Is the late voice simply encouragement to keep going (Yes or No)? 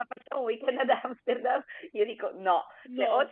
Yes